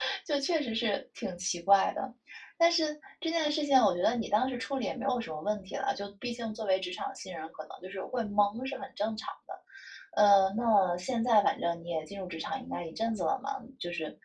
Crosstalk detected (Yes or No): No